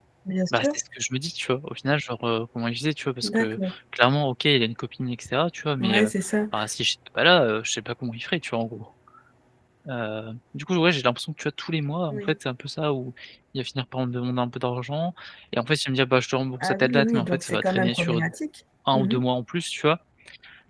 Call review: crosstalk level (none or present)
present